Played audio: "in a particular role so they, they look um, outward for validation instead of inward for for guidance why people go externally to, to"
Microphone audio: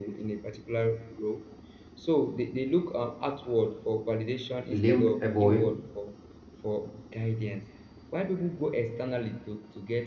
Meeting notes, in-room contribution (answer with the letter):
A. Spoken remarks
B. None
A